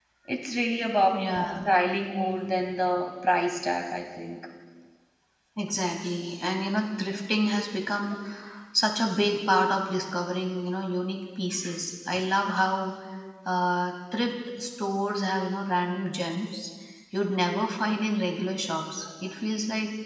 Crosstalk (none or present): none